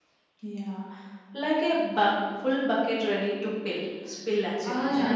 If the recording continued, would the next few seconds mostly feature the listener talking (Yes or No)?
Yes